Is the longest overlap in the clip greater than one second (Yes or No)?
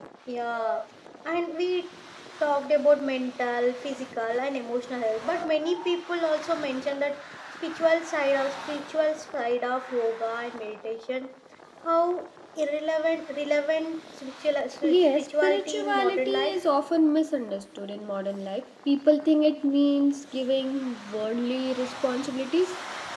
Yes